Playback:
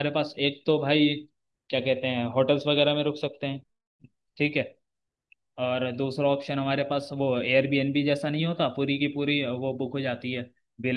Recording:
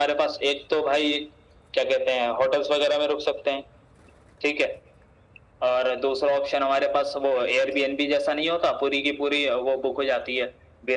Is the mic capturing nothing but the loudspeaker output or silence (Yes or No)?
Yes